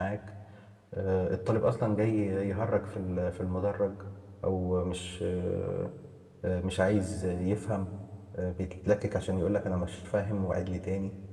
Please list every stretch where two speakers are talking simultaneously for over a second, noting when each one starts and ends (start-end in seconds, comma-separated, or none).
none